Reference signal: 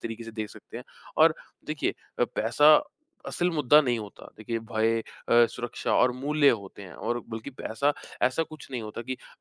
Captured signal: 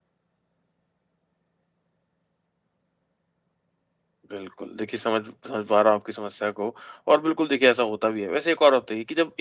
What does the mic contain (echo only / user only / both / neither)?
user only